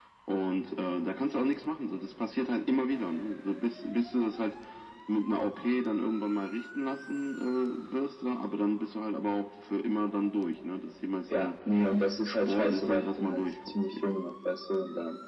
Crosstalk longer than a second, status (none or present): present